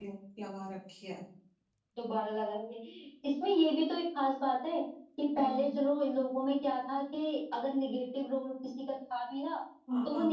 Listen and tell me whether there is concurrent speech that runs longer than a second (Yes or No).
No